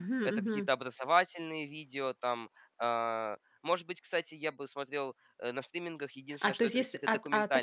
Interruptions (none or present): present